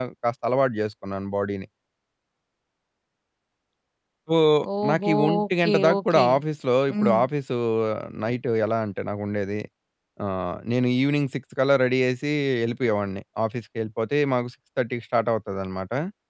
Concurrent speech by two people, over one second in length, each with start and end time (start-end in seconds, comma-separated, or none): 4.9-6.2